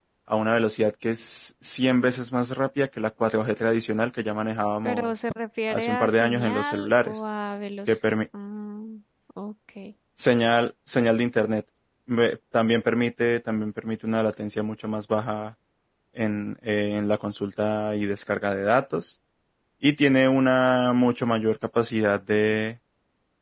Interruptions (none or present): present